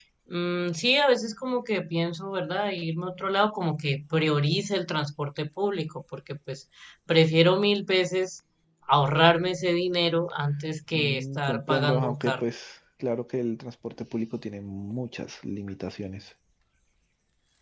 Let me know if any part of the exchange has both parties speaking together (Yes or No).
Yes